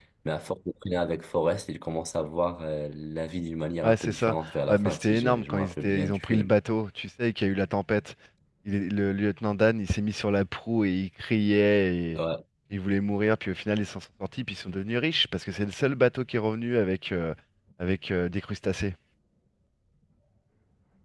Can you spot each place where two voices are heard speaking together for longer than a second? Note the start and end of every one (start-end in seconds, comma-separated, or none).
3.8-6.5